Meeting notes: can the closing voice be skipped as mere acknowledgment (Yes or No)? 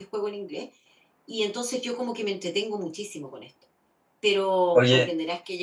Yes